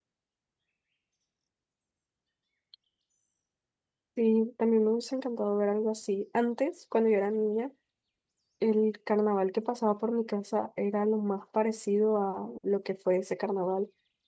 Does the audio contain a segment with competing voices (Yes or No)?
No